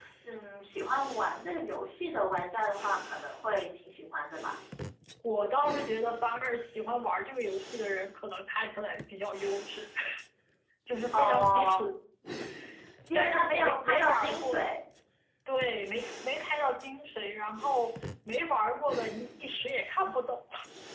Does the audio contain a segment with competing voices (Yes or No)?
Yes